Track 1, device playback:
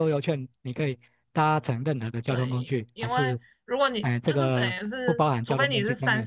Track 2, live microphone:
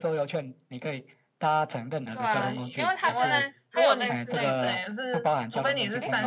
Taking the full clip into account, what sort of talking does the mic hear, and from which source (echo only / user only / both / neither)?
both